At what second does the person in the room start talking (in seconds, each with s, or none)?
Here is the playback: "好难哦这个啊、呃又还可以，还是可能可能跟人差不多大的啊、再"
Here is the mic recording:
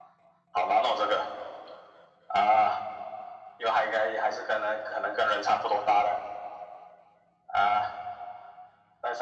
none